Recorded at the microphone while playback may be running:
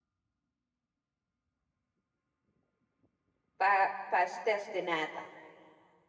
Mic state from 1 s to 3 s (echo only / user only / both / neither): neither